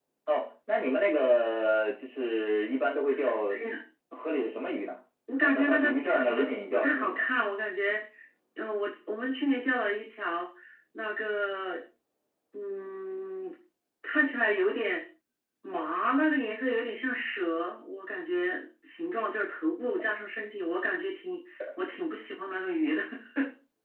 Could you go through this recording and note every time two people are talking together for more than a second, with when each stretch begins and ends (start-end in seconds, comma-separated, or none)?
5.4-7.2